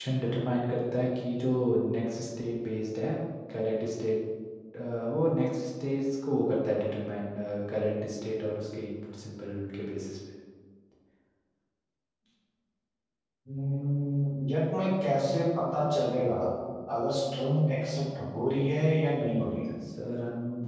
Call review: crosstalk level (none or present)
none